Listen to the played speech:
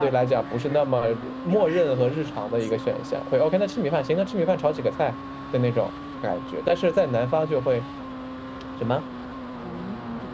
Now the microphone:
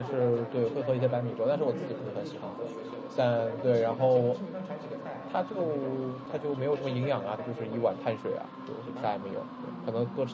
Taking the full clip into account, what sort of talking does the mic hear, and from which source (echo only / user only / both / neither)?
both